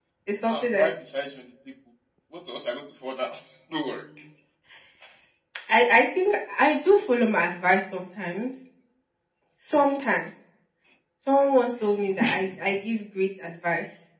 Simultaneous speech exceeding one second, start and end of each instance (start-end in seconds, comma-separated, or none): none